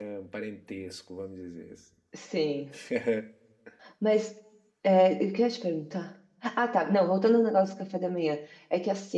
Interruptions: none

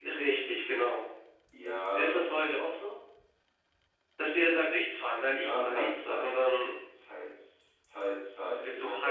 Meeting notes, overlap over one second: present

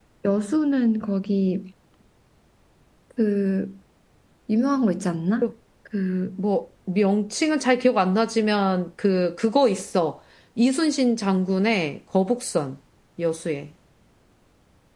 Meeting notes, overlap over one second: none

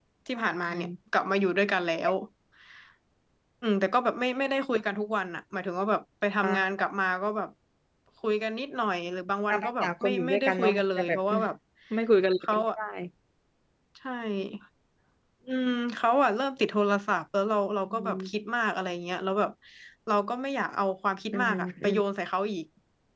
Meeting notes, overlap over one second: present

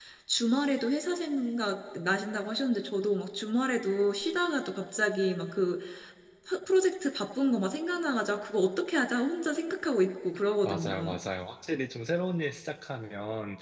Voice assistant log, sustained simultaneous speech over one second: none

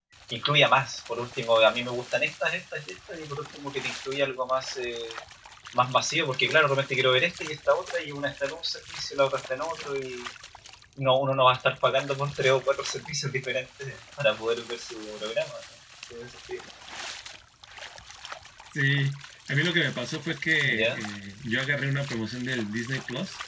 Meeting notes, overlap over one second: none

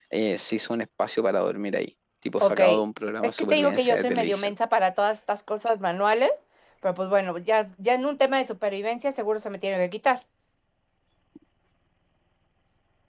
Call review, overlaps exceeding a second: present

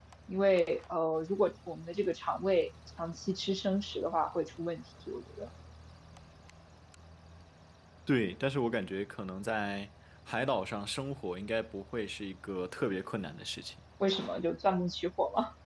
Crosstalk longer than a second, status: none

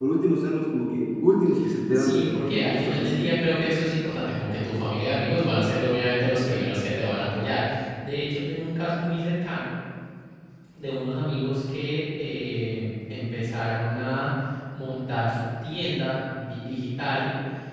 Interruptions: present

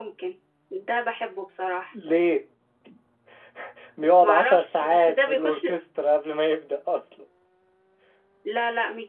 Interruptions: present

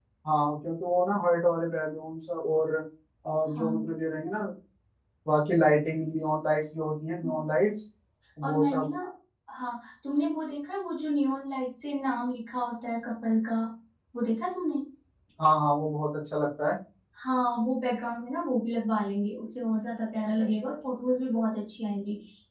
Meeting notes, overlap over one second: none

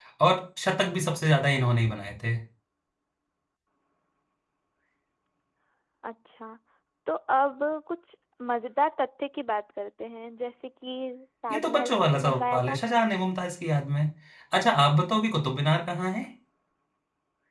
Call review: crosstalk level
present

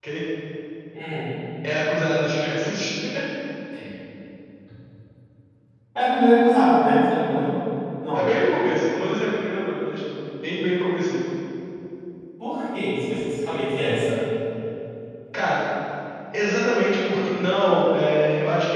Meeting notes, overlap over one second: none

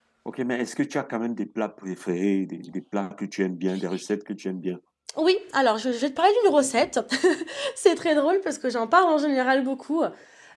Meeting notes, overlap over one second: none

